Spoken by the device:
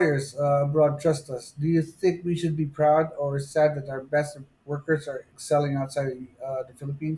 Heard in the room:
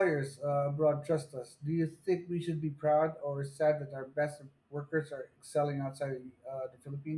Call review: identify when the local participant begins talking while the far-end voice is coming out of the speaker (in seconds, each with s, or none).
none